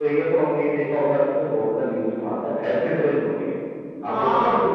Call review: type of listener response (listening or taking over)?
taking over